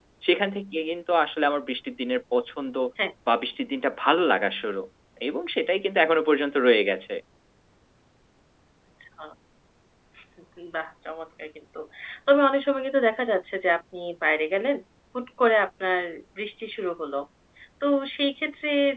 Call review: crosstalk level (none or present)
none